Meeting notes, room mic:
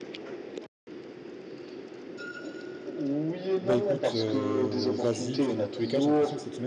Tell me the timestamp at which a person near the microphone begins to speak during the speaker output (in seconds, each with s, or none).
3.6 s